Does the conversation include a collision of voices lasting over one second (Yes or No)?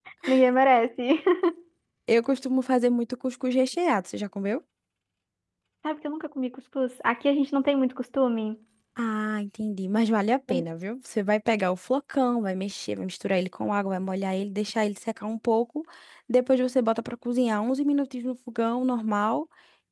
No